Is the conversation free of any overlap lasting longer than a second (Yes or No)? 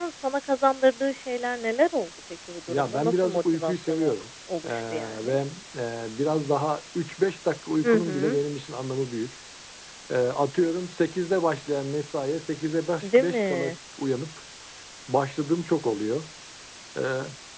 No